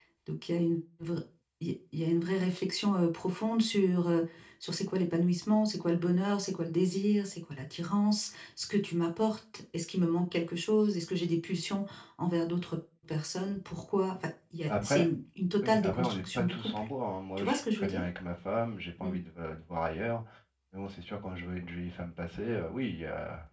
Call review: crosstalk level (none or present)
present